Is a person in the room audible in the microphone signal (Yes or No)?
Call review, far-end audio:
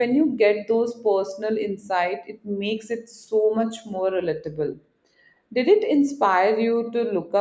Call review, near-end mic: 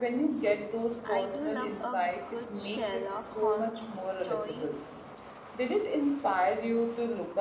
Yes